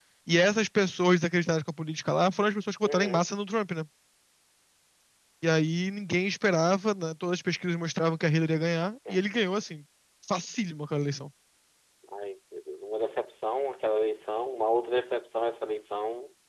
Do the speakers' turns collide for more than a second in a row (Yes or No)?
No